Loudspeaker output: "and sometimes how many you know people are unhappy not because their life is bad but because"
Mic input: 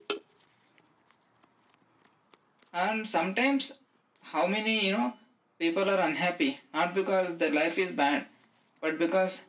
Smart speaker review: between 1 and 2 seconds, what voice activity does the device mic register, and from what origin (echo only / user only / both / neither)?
neither